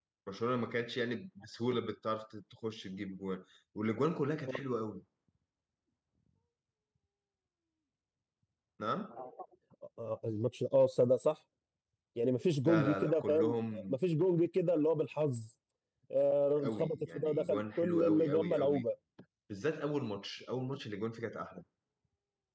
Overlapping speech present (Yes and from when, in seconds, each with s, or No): Yes, from 12.6 s